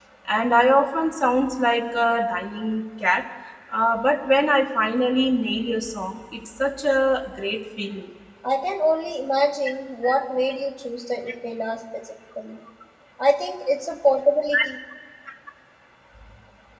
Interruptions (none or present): none